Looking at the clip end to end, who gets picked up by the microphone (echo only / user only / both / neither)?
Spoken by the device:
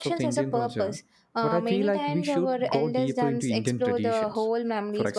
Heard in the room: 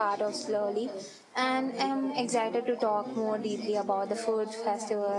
both